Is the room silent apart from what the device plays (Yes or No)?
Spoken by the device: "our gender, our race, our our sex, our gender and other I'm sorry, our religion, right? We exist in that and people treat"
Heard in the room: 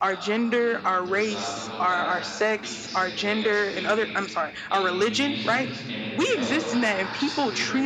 No